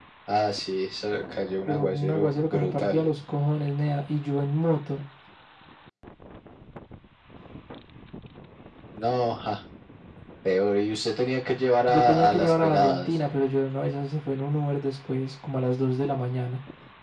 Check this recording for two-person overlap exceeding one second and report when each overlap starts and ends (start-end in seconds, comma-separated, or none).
1.7-3.0, 11.9-13.1